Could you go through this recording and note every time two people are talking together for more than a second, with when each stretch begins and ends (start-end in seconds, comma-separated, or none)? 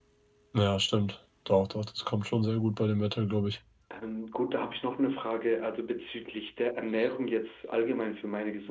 none